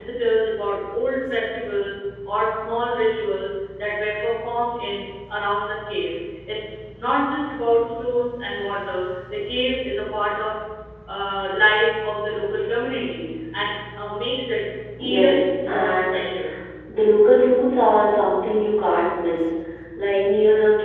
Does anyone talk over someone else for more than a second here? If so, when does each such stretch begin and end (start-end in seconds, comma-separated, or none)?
15.1-16.3